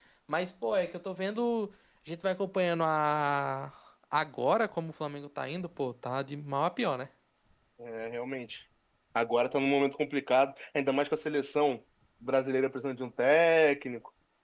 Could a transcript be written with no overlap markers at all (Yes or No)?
Yes